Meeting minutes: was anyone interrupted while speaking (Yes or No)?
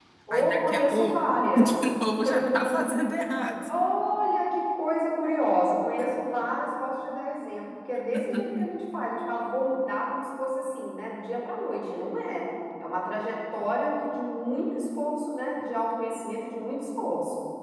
Yes